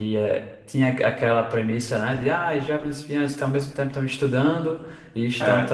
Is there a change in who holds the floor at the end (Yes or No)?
No